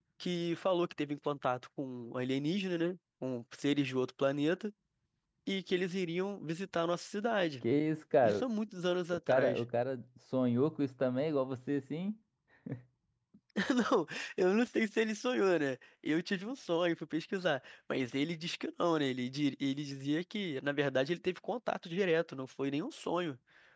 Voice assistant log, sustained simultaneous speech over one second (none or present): none